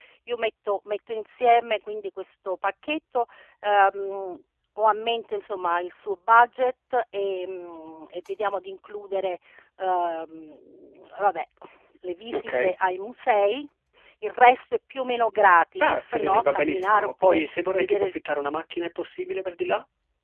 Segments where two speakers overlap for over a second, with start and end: 15.8-18.1

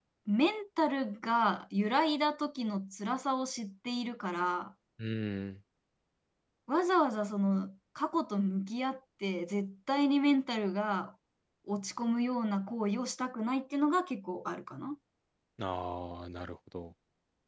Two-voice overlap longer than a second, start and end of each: none

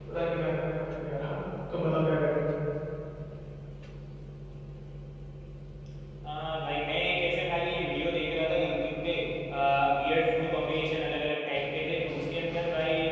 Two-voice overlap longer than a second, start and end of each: none

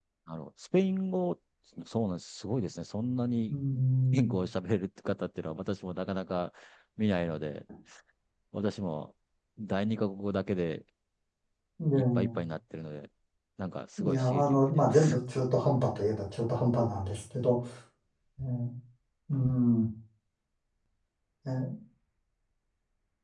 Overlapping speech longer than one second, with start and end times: 14.0-15.2

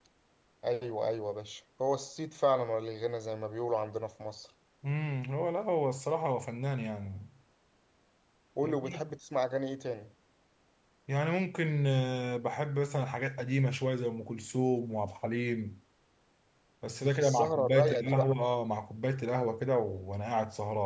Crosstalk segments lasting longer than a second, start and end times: 16.9-18.3

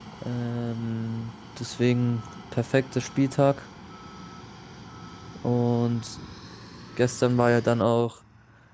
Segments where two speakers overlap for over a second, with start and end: none

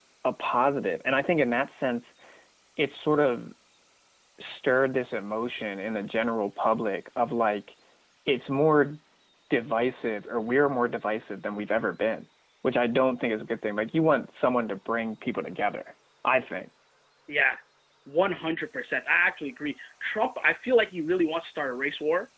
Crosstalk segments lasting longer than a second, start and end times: none

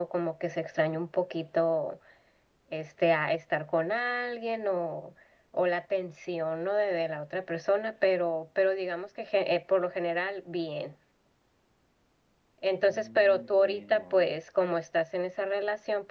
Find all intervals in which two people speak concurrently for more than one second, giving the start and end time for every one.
12.8-14.2

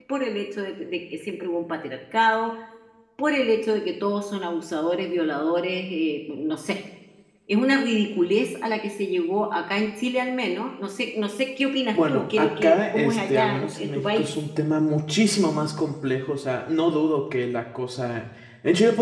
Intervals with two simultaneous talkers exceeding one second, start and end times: 11.9-14.4

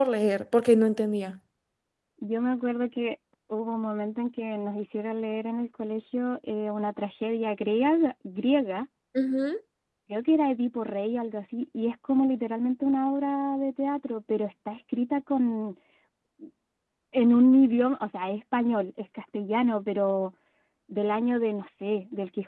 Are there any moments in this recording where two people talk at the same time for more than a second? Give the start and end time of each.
none

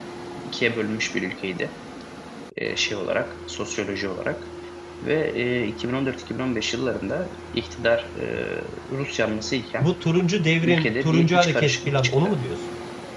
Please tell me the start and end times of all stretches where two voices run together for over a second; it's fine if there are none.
10.6-12.4

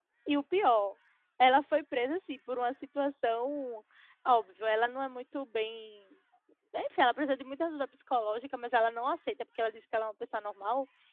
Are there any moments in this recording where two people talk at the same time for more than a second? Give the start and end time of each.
none

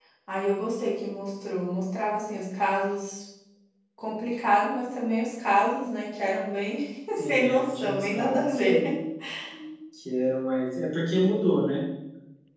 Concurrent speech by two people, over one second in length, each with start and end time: 7.2-8.8

